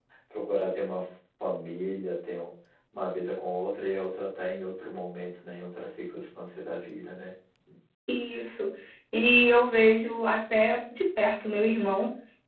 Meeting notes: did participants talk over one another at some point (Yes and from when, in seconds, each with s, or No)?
No